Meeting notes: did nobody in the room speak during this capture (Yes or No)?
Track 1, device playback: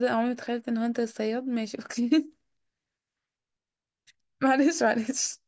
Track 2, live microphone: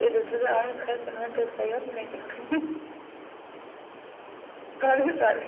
Yes